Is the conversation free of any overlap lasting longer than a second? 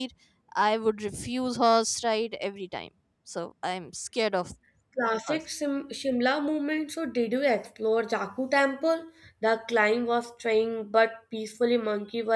Yes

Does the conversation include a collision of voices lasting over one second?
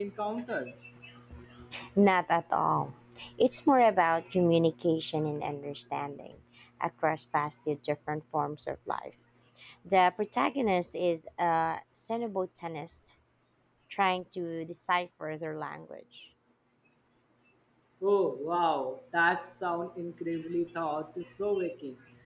No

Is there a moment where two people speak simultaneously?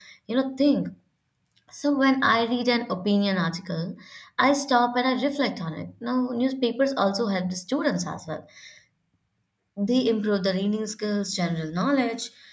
No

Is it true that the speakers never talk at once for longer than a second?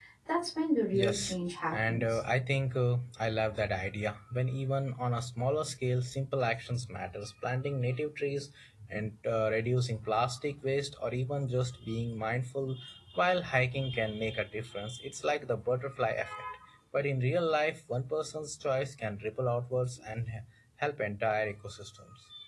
No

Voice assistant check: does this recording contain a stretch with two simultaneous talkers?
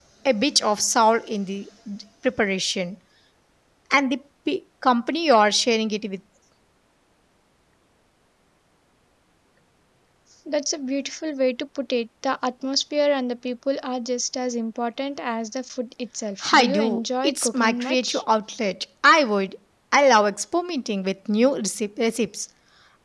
Yes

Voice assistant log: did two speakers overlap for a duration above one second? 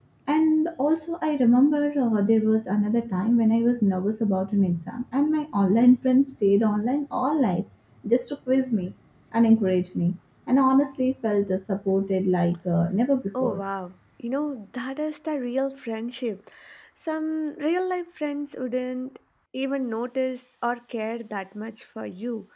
No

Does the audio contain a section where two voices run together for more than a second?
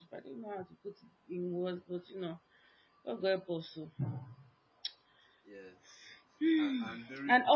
No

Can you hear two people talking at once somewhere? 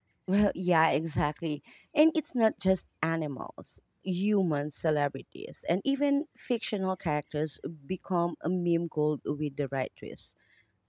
No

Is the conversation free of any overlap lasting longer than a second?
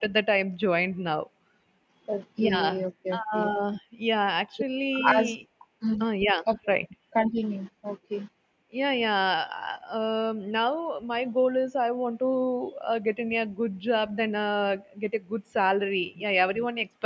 Yes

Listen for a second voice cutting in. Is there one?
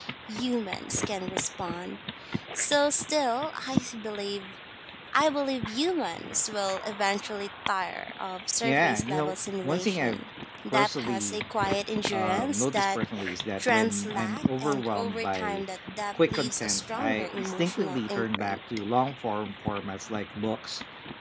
Yes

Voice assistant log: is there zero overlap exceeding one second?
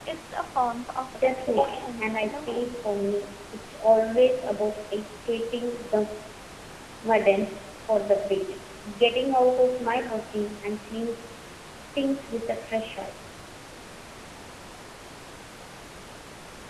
No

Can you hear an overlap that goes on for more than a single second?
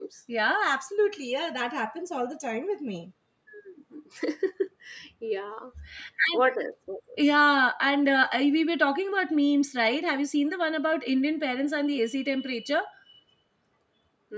No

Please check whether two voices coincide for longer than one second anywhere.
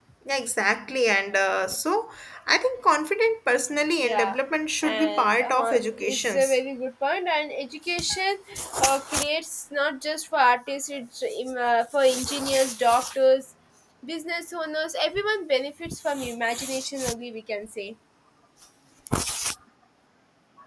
Yes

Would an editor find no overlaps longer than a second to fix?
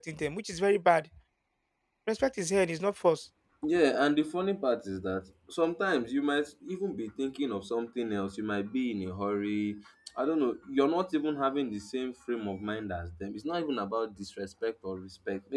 Yes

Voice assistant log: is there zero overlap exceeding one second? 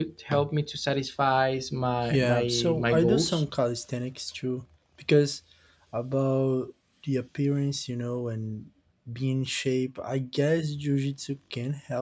No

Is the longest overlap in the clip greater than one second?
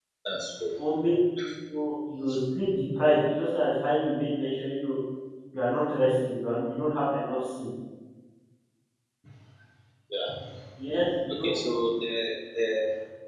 No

